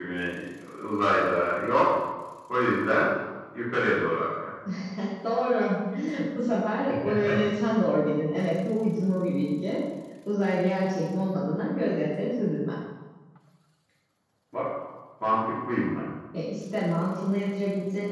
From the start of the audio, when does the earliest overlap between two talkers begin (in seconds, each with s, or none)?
none